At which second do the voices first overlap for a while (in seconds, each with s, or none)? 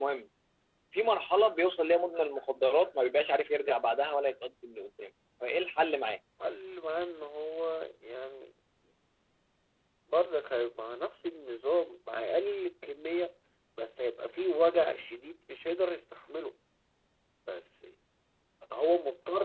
none